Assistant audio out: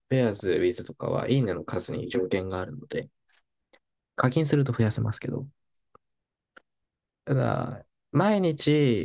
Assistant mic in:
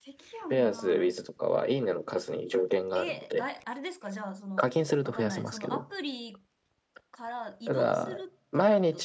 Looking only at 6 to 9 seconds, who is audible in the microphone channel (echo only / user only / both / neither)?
both